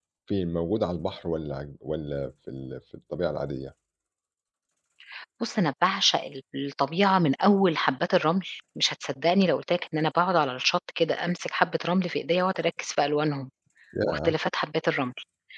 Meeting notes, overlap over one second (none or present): none